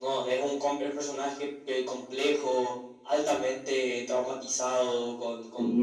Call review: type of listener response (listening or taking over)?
taking over